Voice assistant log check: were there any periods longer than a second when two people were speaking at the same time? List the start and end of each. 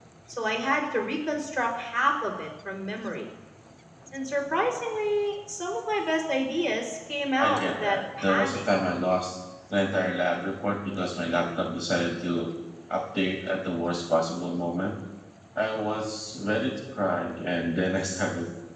7.4-8.6

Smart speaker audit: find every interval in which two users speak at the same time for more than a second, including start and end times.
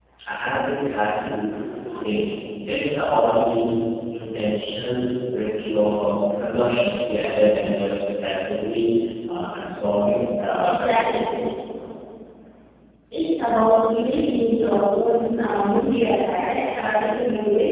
none

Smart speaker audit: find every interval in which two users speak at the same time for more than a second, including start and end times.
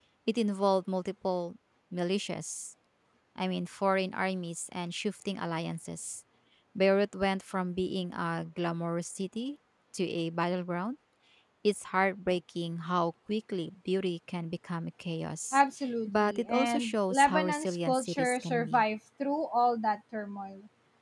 16.1-18.8

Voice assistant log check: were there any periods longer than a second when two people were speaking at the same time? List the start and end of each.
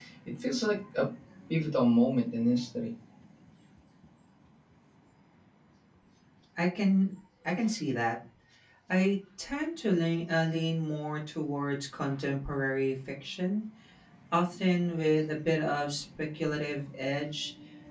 none

